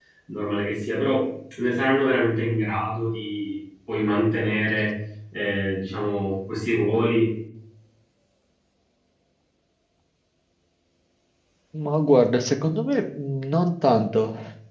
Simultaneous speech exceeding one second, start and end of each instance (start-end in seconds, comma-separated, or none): none